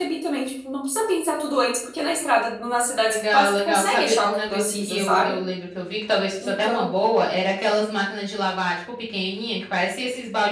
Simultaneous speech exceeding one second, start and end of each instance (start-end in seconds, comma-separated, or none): 3.1-5.4